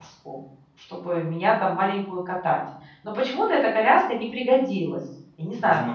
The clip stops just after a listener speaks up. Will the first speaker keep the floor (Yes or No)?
No